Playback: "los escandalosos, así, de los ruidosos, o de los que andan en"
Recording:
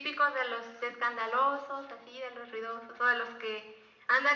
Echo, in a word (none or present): present